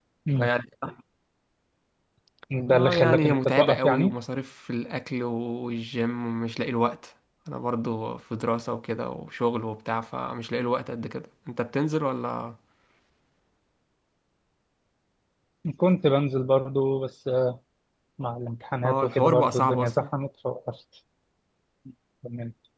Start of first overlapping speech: 2.7 s

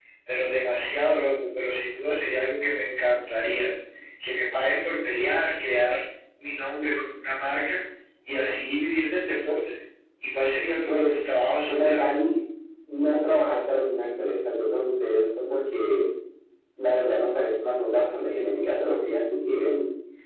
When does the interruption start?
10.9 s

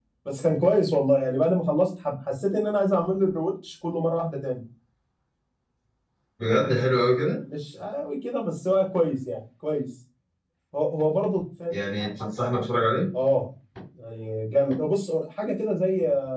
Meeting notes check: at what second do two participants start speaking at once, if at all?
none

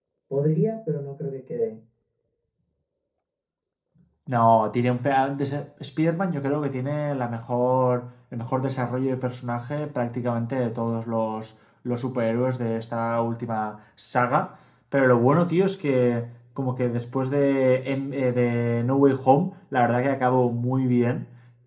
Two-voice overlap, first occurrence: none

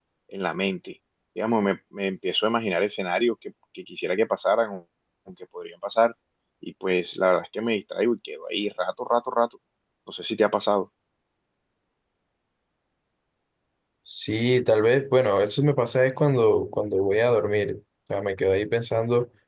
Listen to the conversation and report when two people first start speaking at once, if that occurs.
none

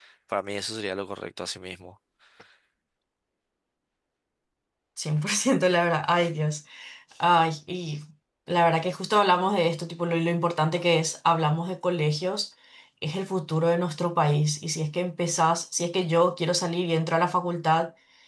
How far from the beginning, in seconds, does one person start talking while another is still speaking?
none

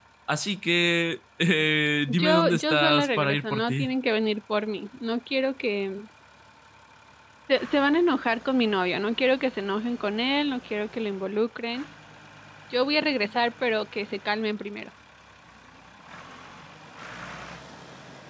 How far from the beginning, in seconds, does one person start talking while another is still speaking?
2.1 s

